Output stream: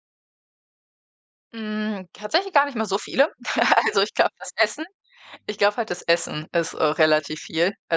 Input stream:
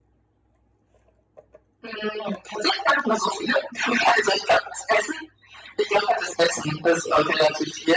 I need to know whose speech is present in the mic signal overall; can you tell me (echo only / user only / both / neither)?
echo only